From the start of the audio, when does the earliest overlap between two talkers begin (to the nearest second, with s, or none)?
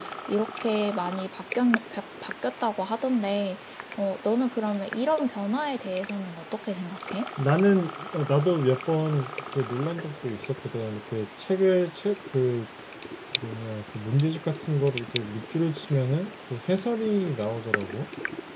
none